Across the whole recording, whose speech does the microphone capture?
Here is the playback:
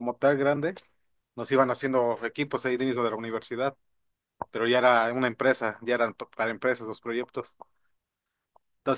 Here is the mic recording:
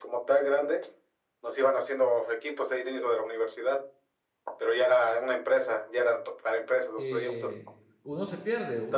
both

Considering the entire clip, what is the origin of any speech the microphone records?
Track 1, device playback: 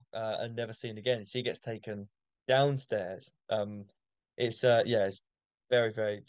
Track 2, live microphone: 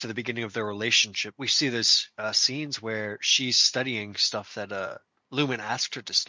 user only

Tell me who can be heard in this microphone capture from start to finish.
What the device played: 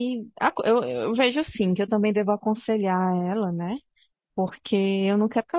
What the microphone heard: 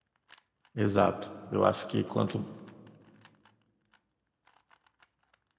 user only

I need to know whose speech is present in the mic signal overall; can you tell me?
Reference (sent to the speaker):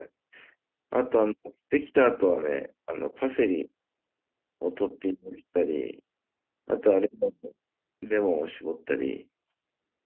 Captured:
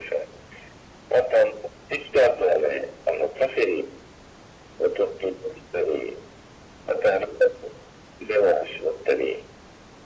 echo only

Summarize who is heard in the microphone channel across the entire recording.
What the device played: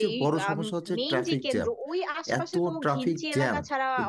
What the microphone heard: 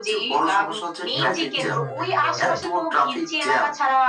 both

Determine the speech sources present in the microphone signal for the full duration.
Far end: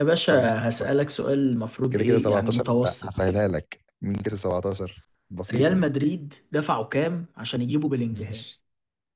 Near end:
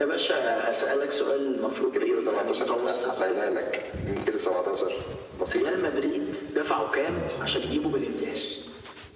both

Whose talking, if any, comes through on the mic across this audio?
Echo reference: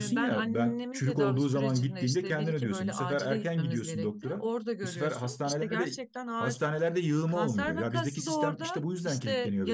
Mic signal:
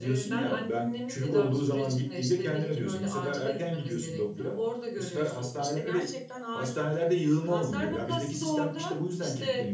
echo only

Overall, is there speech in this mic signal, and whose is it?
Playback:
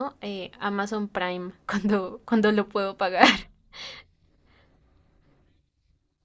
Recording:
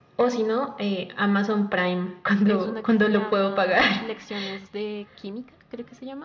both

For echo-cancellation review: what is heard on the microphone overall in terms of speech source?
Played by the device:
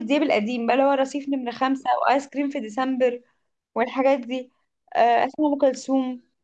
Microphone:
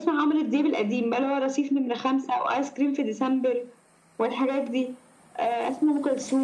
echo only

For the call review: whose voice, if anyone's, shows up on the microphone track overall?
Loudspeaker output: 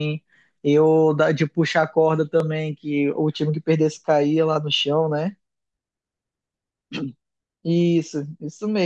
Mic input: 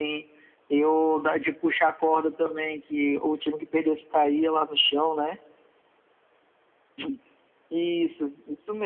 echo only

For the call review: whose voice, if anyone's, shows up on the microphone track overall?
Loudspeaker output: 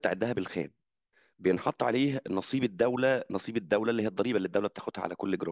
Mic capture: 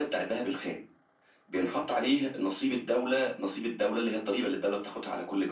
echo only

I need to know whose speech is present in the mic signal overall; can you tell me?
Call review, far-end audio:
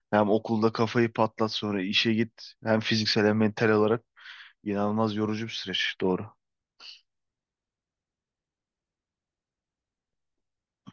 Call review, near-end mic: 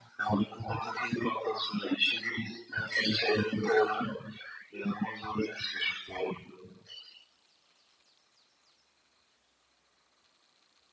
echo only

